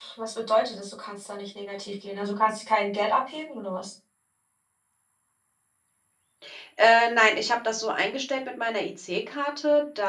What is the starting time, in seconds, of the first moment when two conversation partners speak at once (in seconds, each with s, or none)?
none